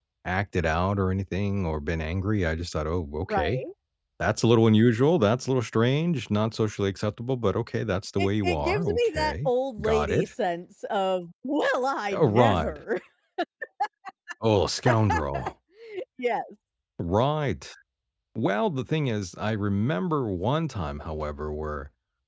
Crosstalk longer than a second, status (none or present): present